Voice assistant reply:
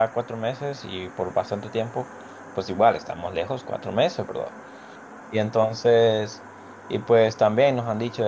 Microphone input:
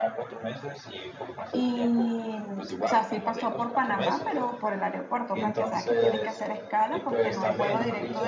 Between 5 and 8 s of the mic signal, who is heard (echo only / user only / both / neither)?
both